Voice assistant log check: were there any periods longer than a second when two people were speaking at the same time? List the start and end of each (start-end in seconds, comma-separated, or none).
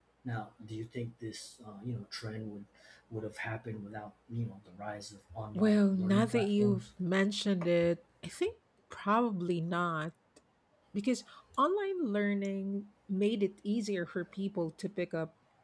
5.5-6.8